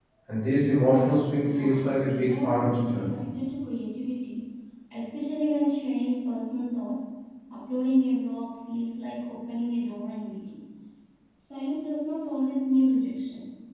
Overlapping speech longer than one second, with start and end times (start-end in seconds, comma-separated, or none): 1.4-3.1